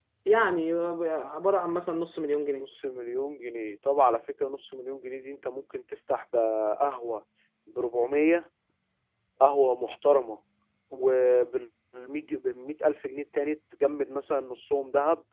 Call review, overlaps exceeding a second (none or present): none